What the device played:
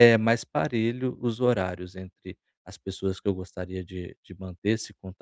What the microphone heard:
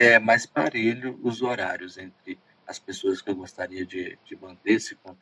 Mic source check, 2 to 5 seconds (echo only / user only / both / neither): echo only